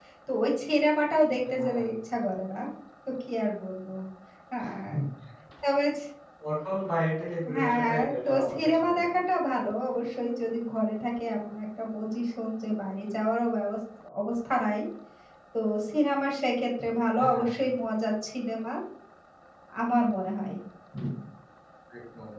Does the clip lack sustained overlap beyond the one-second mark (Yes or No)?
No